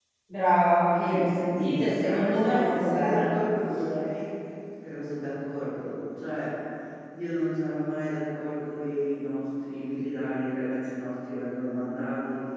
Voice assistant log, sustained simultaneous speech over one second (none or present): present